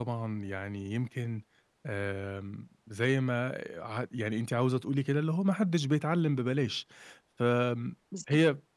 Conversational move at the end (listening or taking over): listening